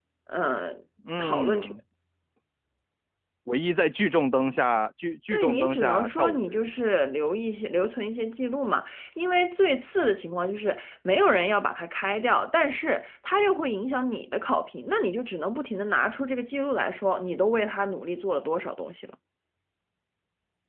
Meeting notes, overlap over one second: present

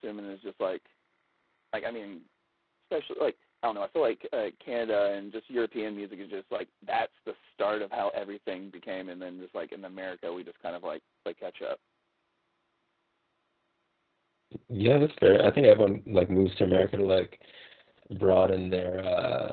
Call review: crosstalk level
none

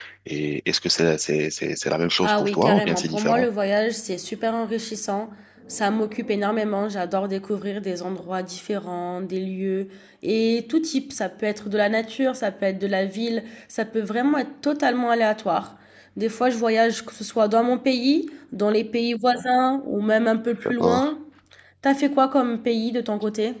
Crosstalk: present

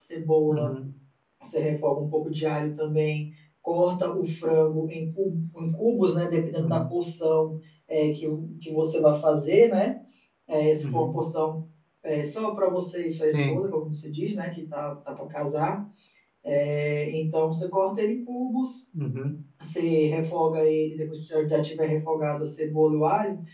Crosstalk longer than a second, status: none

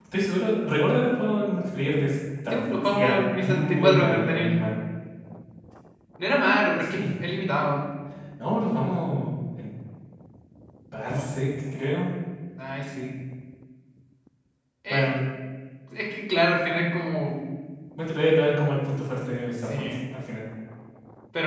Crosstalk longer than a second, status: present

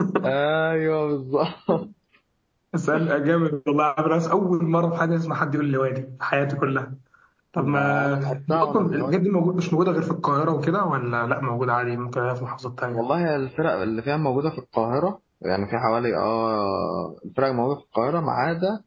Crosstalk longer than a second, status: present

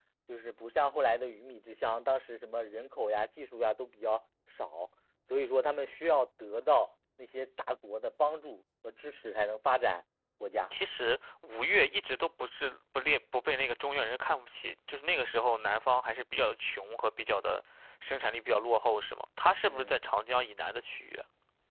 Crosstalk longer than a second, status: none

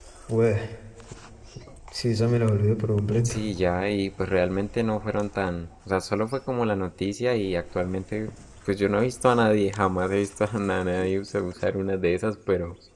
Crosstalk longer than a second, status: none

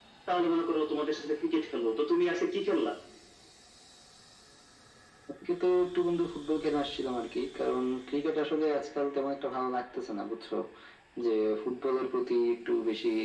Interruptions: none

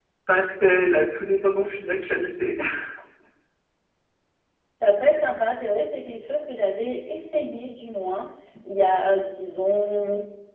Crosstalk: none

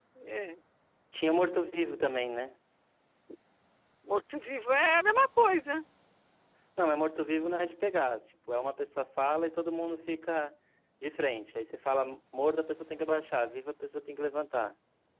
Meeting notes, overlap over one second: none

